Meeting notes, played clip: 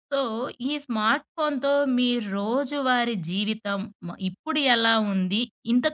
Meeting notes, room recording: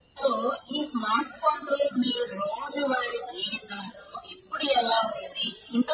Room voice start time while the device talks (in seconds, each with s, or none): none